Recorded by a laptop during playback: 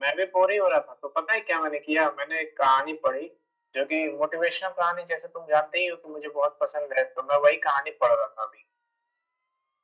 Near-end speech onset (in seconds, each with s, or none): none